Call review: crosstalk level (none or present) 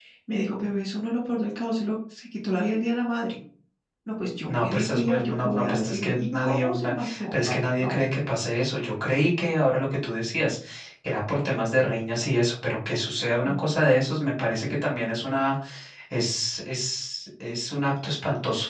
present